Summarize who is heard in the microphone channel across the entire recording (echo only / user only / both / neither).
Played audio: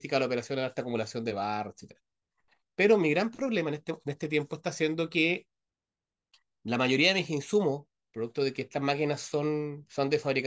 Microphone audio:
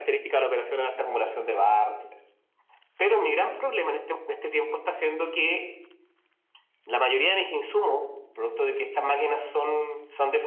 echo only